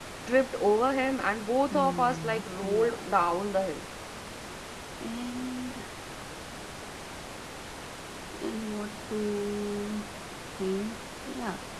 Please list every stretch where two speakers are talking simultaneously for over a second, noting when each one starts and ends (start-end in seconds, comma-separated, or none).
1.7-3.1